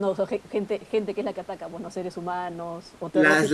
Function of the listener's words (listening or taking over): taking over